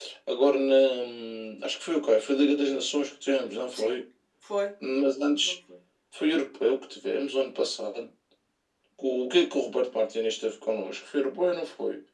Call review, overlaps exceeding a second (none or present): none